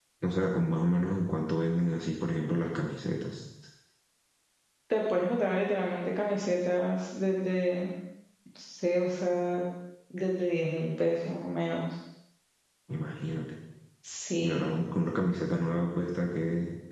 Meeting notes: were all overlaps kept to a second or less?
Yes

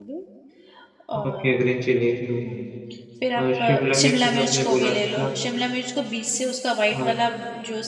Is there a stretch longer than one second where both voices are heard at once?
Yes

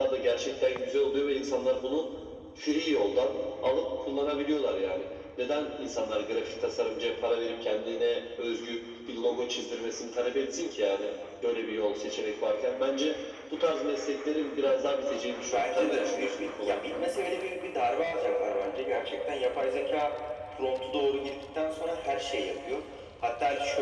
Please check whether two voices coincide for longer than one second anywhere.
Yes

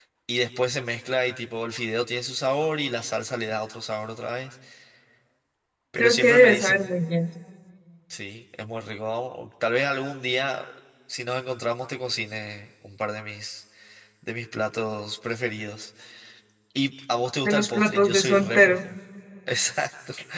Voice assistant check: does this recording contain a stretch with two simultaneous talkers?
Yes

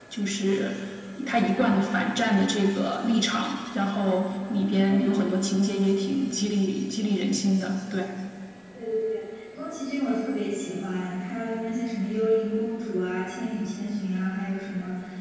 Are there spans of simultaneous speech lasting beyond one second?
No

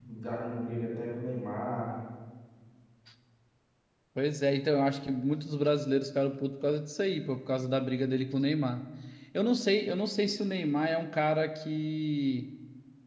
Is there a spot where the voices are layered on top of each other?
No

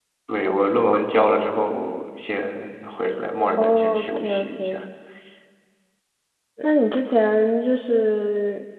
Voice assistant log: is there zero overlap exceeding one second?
No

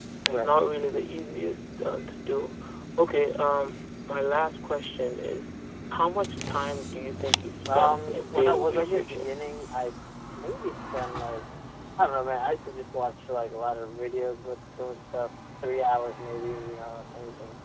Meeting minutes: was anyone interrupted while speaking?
Yes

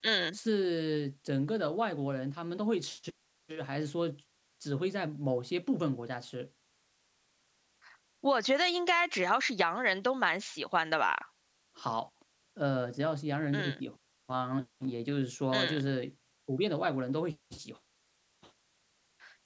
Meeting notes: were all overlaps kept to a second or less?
Yes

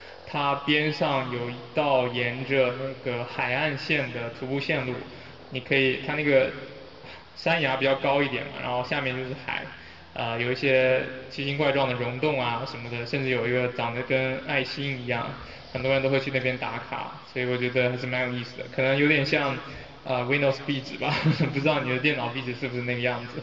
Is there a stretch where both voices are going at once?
No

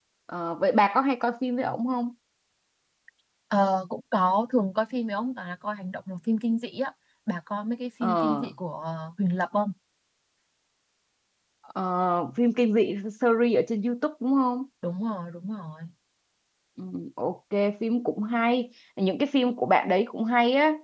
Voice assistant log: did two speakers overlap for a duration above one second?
No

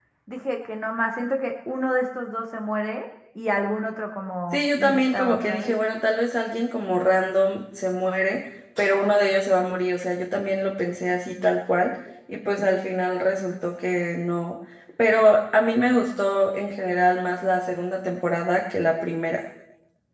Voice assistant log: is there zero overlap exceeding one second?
No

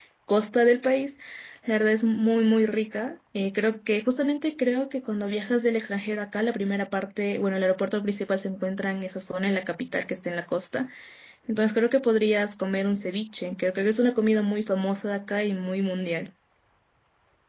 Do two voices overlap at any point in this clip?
No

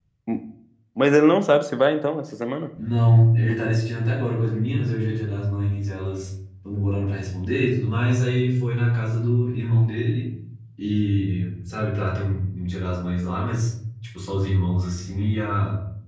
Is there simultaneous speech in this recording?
No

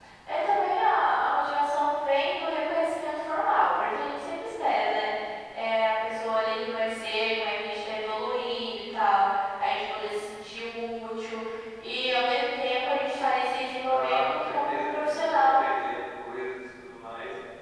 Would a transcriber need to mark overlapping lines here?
Yes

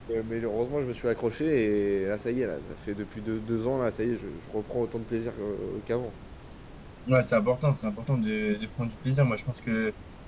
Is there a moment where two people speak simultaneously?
No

